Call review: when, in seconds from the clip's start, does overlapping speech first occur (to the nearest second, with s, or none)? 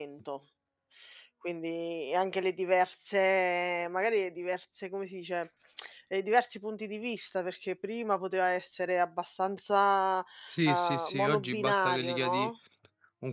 11 s